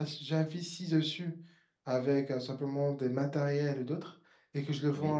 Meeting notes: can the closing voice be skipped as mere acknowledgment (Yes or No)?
Yes